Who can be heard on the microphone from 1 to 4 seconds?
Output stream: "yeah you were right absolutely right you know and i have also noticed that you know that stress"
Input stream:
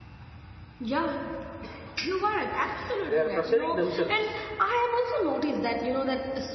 both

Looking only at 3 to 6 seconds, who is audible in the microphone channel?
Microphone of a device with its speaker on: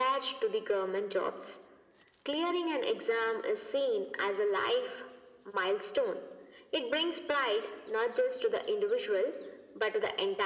echo only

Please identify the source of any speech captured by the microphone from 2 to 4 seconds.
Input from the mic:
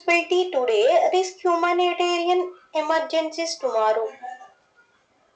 echo only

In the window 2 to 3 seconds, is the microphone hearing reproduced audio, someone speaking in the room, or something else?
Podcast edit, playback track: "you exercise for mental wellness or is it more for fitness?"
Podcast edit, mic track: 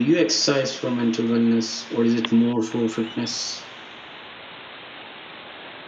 echo only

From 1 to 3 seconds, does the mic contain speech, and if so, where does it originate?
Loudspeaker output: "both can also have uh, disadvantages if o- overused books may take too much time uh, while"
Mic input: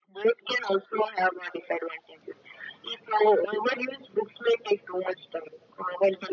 echo only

